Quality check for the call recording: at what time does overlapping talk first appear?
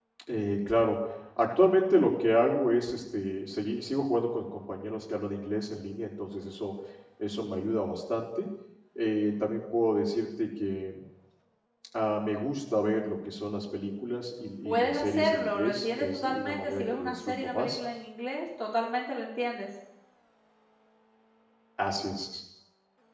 14.6 s

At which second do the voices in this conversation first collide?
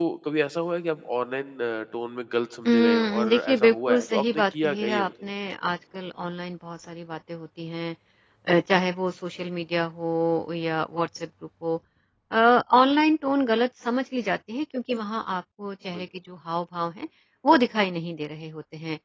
2.7 s

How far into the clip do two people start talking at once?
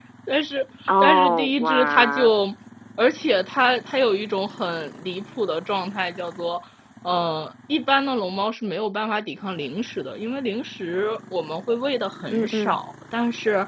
1.0 s

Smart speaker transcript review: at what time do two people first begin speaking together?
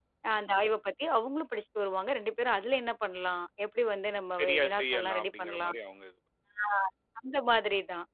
4.4 s

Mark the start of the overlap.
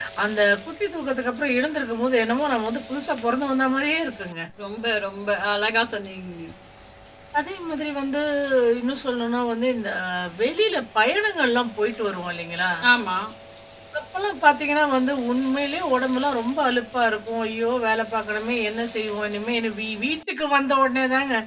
none

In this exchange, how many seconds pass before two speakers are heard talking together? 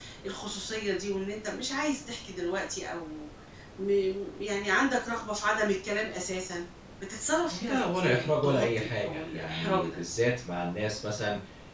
7.7 s

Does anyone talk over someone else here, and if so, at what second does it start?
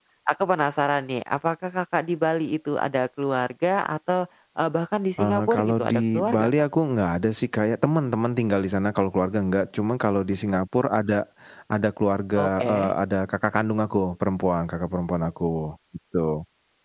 5.2 s

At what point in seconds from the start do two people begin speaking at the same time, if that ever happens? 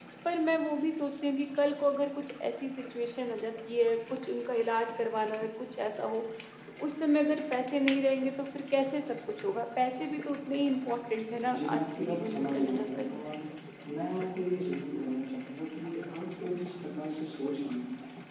11.5 s

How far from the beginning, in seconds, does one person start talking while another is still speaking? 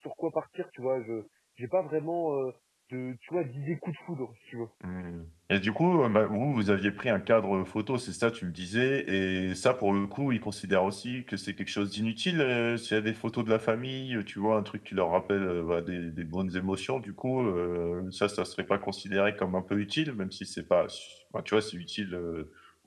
none

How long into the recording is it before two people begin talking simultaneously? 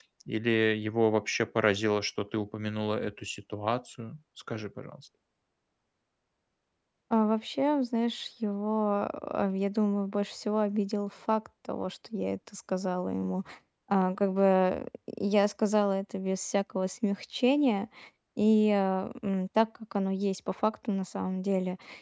none

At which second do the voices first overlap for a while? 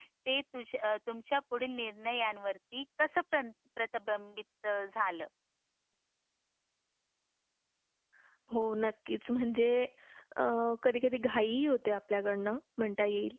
none

